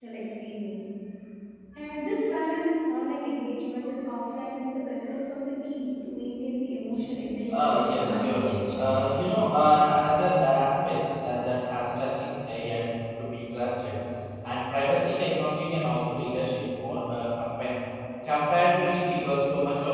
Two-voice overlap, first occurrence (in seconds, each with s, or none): 7.5 s